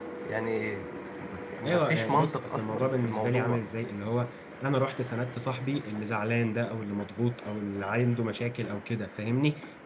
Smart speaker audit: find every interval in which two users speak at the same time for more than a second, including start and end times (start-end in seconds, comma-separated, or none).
1.6-3.6